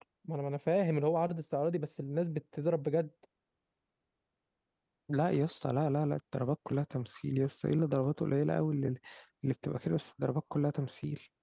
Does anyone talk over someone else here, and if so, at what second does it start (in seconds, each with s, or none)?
none